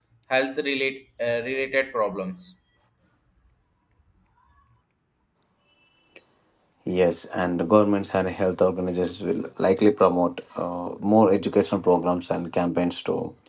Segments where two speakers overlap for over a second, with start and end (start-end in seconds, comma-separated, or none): none